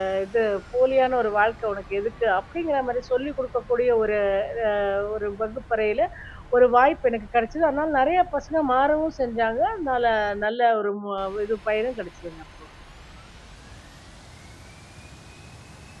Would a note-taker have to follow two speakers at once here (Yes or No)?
No